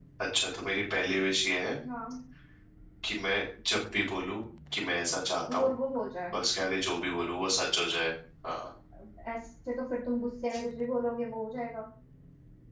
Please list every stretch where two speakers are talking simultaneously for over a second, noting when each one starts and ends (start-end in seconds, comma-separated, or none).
none